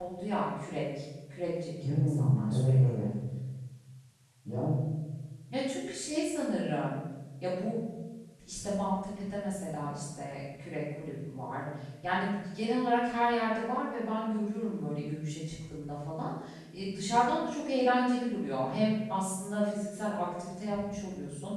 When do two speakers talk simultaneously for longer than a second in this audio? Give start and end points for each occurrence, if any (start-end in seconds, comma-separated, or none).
1.8-3.1